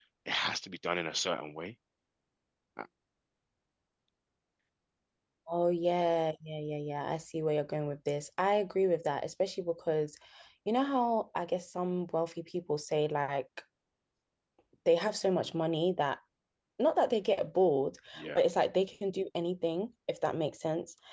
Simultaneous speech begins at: none

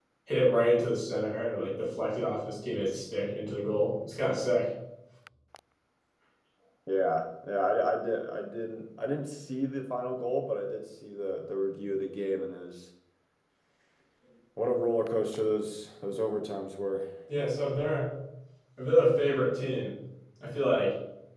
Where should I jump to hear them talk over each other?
none

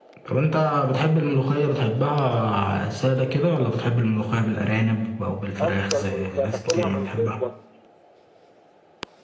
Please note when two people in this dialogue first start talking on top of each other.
6 s

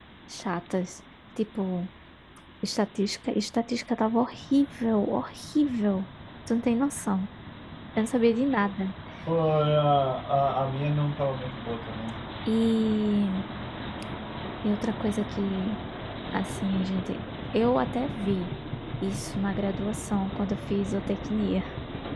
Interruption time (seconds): none

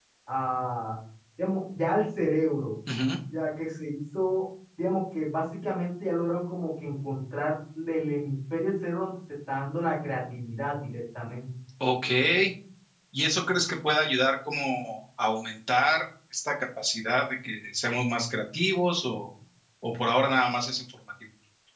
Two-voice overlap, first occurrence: none

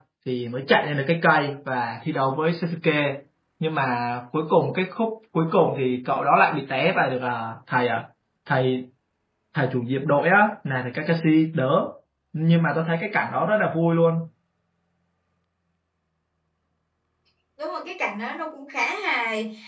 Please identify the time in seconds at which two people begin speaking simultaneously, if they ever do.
none

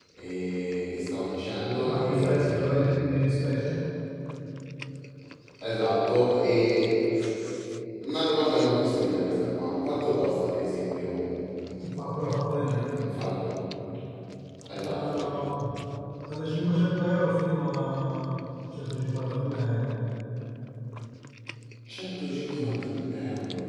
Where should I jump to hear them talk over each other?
2 s

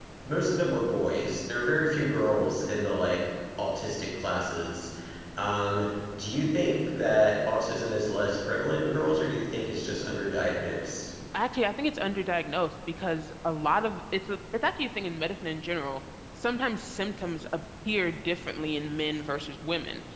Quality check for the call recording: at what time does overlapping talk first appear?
none

